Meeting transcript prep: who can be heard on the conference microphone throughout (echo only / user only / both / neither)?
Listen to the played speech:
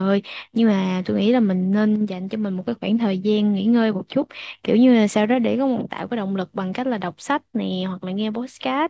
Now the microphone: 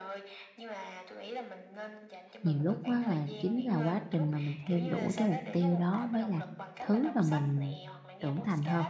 both